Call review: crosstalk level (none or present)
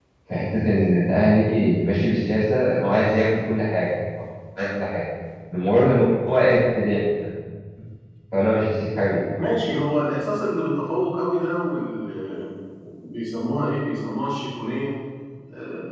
none